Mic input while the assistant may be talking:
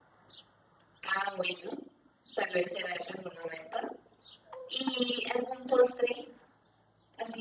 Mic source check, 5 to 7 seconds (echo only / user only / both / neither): echo only